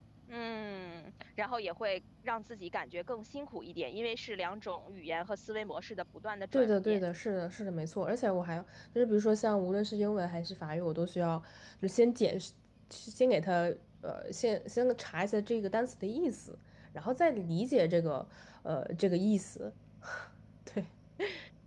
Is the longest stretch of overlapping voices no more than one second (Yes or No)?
Yes